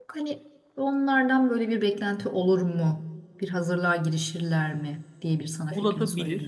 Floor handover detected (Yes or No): Yes